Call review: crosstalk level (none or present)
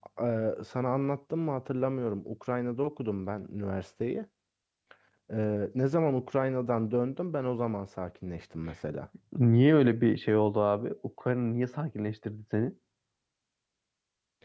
none